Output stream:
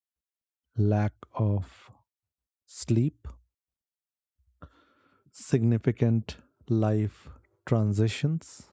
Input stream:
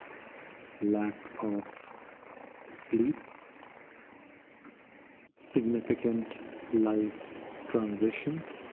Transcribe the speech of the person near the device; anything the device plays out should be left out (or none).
none